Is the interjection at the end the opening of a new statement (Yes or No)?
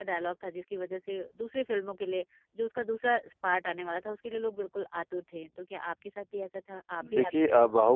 Yes